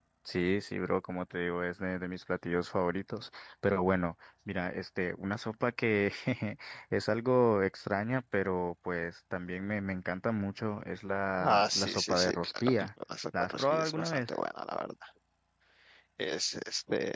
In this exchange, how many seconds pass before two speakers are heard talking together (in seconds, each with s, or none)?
11.4 s